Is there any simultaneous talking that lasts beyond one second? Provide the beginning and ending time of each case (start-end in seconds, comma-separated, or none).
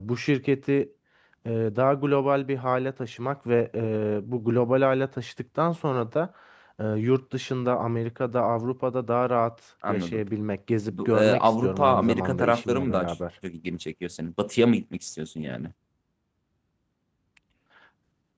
10.9-13.1